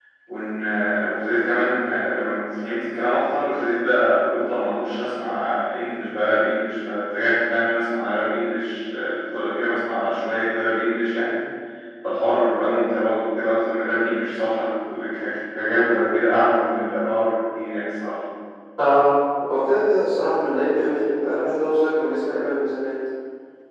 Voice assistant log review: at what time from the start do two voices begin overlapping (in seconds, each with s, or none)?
none